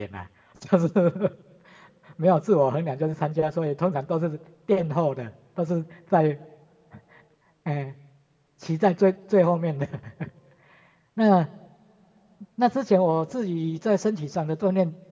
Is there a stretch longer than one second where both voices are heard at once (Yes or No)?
No